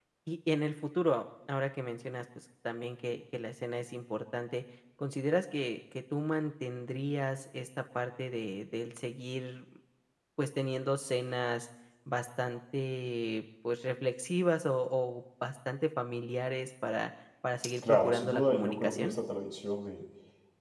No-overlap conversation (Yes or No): No